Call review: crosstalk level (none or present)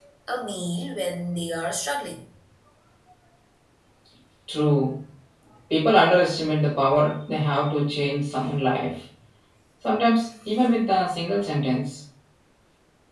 none